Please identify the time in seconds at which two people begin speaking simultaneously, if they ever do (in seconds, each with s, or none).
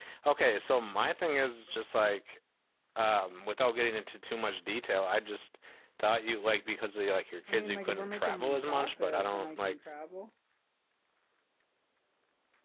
7.5 s